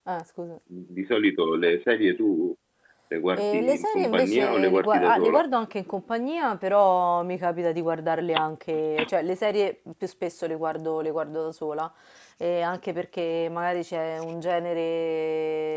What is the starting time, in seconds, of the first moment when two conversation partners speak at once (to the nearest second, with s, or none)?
3 s